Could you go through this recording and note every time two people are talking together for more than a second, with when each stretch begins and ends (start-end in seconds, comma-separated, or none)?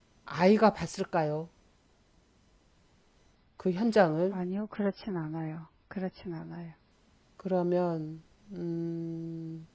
none